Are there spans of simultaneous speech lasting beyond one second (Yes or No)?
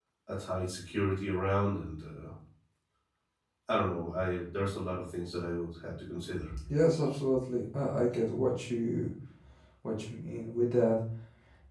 No